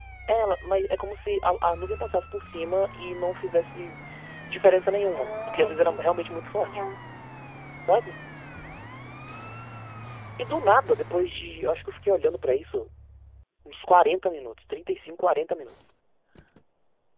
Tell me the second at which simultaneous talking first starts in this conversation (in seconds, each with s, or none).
5.2 s